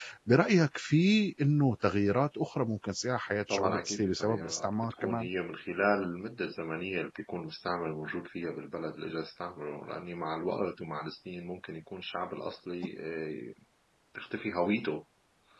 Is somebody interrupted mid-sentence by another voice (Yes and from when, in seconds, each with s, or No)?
Yes, from 3.3 s